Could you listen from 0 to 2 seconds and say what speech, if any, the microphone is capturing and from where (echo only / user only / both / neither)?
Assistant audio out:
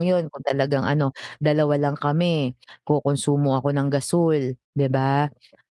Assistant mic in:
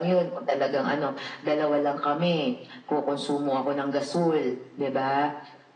echo only